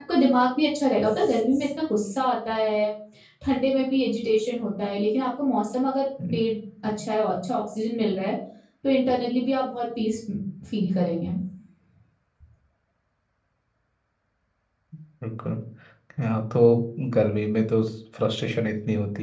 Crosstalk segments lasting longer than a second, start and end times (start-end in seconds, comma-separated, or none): none